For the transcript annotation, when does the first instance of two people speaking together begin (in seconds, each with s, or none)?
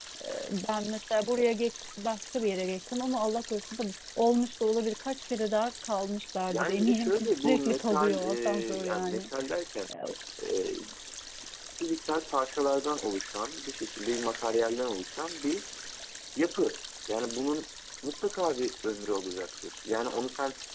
6.5 s